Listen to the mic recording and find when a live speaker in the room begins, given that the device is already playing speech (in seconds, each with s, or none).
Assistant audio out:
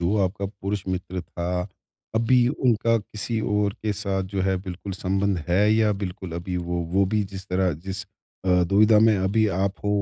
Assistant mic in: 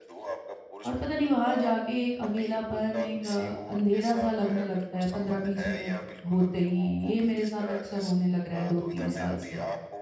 0.8 s